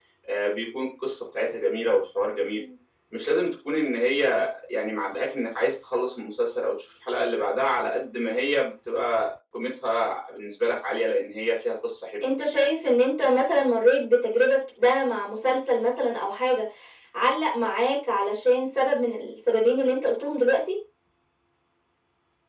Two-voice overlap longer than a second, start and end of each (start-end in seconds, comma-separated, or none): none